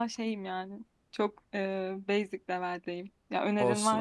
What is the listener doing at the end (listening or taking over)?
taking over